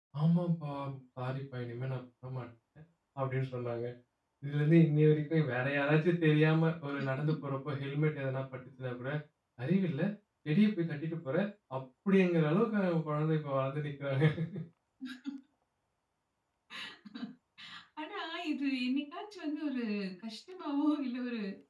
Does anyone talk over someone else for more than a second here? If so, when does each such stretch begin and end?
none

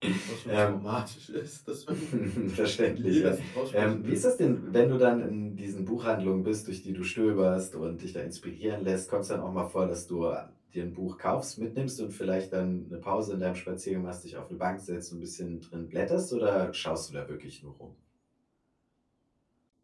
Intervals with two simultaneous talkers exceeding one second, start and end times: 3.0-4.2

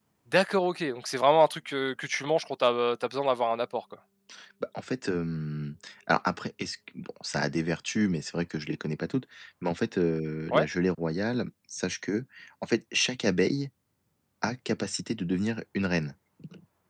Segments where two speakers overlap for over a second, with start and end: none

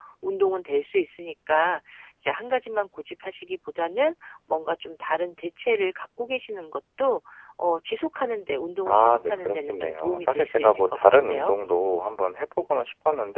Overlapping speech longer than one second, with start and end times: 8.9-11.5

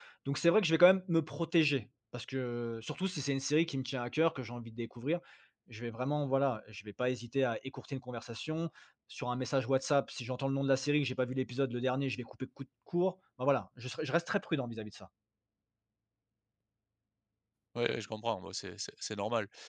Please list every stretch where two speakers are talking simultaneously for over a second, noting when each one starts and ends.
none

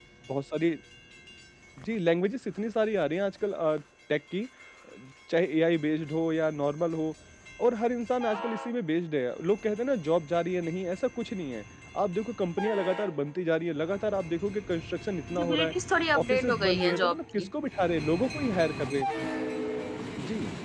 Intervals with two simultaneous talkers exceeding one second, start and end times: 16.2-17.5

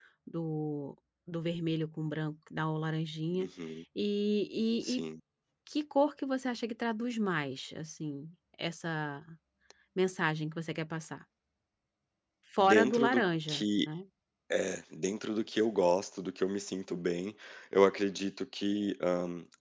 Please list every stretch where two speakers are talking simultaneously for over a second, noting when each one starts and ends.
12.6-13.9

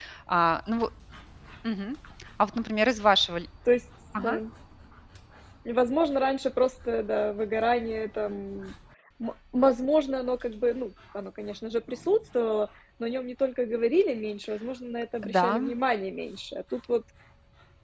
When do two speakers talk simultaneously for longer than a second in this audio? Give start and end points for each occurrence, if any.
none

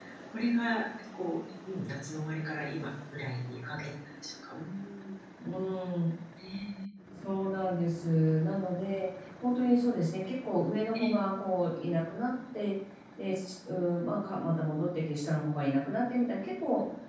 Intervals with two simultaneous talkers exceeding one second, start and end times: none

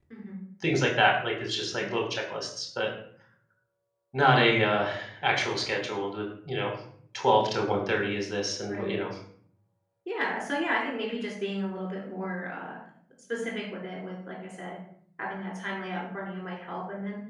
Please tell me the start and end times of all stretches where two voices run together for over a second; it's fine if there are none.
none

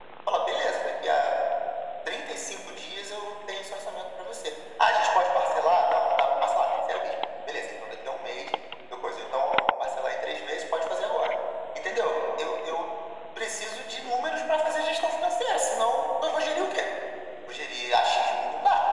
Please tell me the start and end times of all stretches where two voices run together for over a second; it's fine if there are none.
none

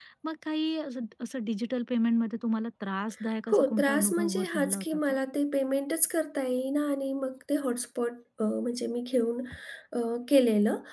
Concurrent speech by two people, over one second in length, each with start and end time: 3.5-5.2

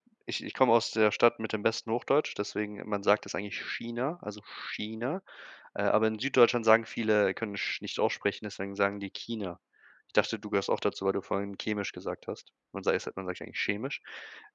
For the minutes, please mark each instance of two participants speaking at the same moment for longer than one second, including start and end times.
none

